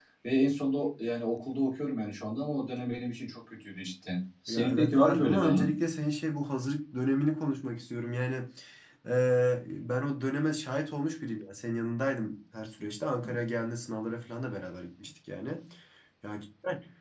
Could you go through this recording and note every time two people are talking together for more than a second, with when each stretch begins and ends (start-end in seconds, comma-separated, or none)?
4.5-5.7